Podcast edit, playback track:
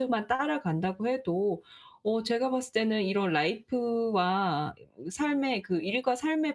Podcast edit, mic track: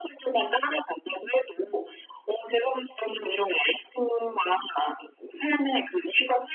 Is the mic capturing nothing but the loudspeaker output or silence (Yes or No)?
Yes